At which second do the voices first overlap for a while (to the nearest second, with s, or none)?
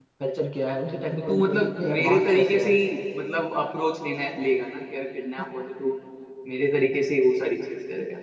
1 s